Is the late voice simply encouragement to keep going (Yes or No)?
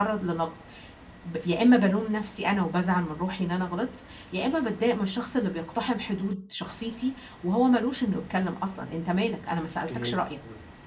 No